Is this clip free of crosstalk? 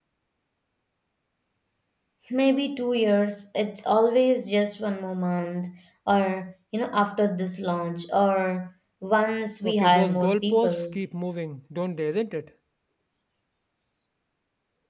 No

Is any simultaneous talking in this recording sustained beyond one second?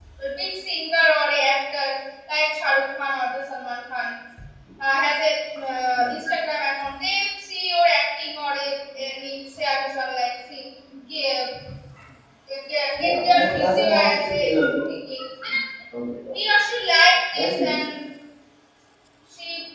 Yes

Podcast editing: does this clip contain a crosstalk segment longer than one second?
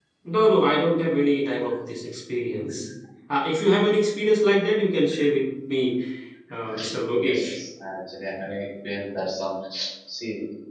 No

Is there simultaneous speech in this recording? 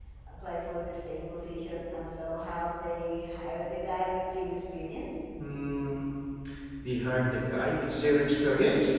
No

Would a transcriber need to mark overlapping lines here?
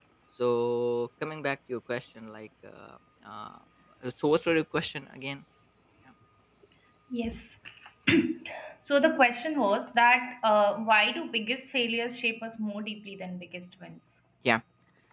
No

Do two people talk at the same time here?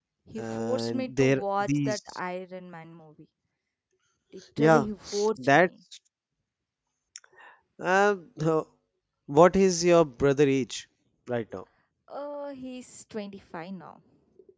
Yes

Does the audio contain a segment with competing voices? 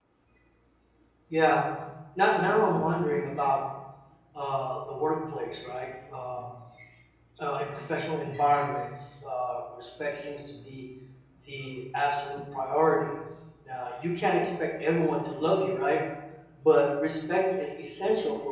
No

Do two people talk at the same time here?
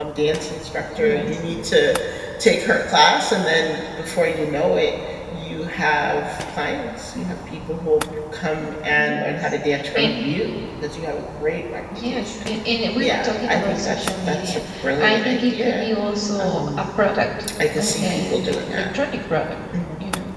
Yes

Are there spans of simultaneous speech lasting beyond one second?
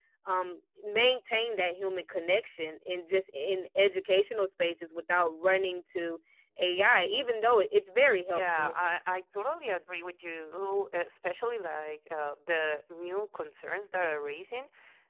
No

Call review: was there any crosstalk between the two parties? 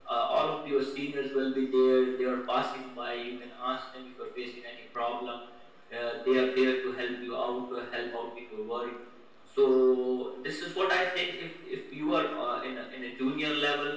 No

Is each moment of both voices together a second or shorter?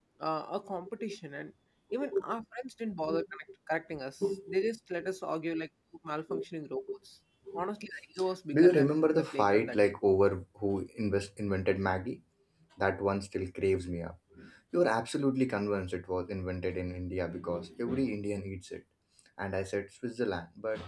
No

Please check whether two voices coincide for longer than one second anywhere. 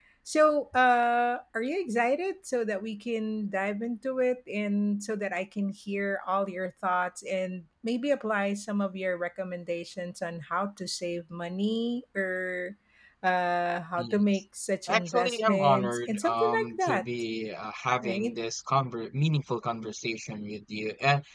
Yes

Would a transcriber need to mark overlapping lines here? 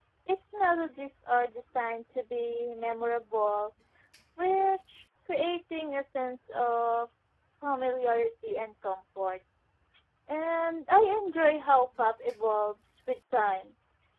No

